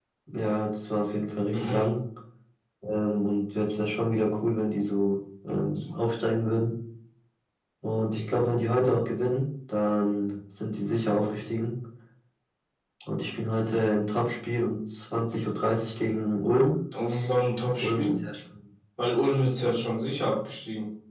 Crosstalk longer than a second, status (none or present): none